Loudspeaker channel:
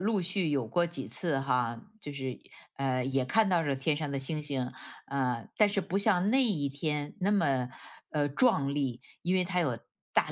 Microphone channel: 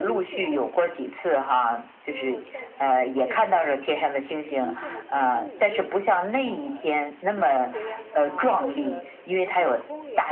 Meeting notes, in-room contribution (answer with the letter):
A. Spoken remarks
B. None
A